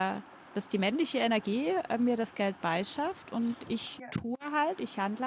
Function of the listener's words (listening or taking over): listening